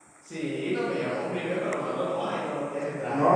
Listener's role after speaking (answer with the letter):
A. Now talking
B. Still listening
A